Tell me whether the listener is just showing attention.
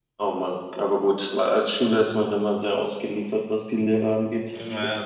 No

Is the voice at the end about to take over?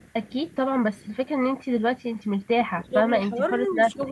Yes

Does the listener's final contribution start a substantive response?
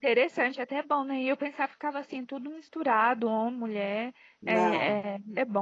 No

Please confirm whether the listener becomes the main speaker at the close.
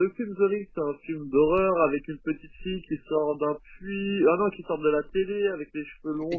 Yes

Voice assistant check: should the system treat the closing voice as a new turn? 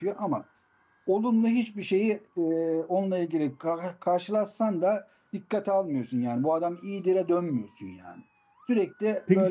No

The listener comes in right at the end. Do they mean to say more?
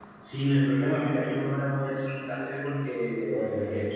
No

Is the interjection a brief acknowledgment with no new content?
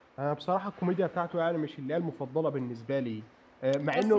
Yes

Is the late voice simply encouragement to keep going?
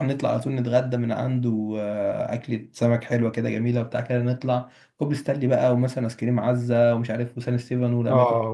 No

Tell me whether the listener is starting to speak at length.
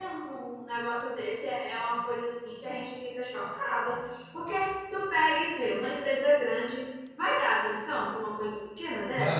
Yes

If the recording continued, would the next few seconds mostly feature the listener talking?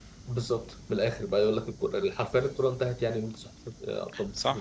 Yes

